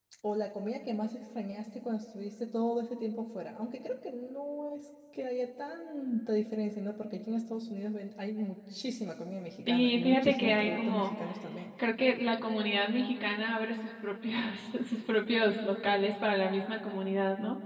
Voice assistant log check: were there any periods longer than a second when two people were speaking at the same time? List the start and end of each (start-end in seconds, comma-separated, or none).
9.7-11.1